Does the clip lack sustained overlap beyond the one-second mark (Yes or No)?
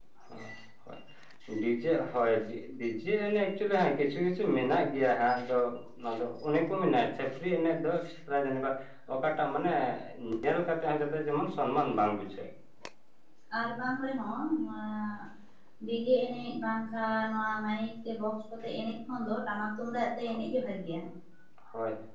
Yes